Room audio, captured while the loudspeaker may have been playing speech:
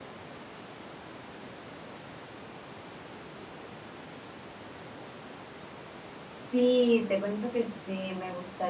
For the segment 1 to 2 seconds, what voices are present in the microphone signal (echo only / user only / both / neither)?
neither